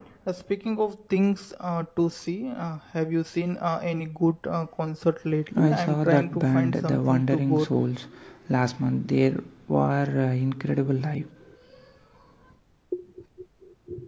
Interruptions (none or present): present